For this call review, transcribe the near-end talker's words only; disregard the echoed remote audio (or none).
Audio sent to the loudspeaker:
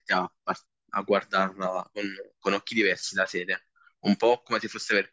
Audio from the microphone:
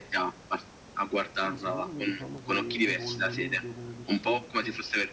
Sì, secondo me diciamo che evolve meglio come personaggio